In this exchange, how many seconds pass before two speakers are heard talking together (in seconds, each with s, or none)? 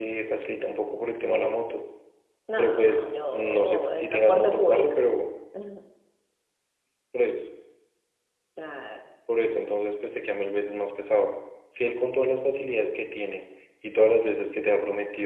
2.6 s